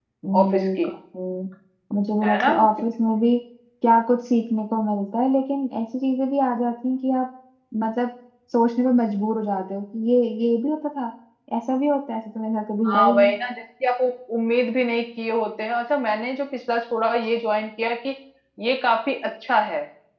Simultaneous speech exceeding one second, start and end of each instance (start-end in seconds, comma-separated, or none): none